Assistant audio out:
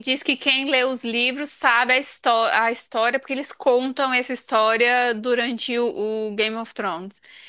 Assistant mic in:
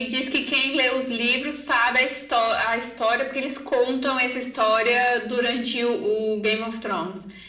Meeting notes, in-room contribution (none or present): none